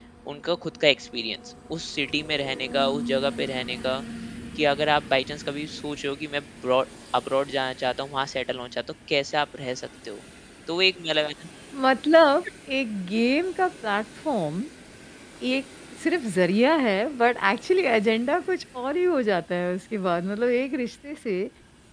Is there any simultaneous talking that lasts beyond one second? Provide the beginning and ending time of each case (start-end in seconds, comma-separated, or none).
none